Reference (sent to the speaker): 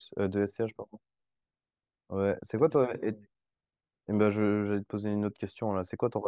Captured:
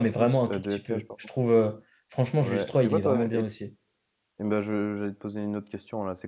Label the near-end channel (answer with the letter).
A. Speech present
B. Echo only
A